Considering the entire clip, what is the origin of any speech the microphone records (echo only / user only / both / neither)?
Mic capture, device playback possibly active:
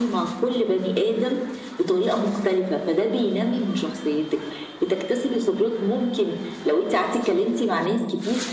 echo only